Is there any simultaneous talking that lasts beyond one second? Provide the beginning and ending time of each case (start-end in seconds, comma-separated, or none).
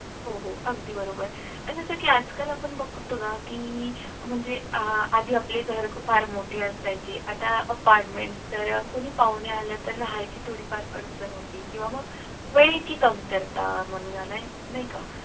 none